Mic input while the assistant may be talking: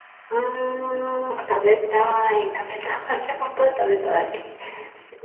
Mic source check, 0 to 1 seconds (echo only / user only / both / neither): user only